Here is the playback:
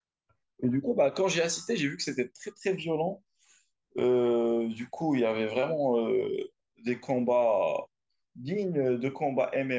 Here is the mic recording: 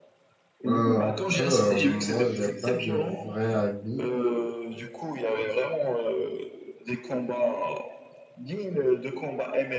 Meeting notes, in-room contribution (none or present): present